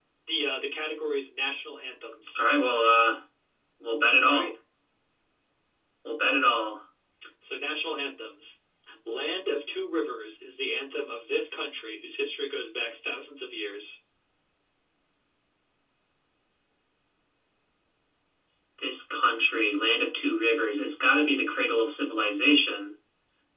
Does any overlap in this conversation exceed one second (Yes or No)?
No